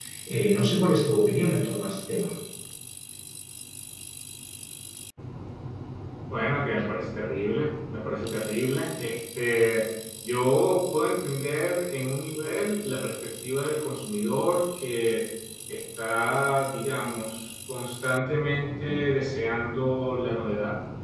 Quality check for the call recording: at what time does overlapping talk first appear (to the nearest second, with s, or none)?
none